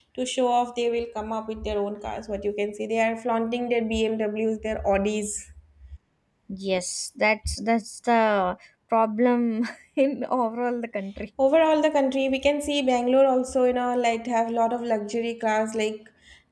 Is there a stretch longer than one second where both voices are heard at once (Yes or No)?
No